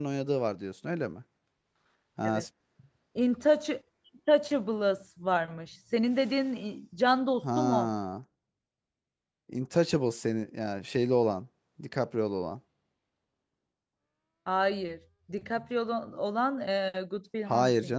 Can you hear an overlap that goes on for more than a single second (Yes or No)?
No